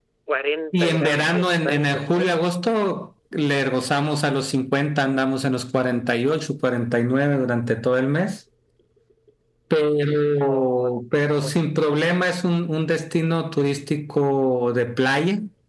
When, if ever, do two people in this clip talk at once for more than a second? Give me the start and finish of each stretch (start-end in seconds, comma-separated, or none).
0.7-2.2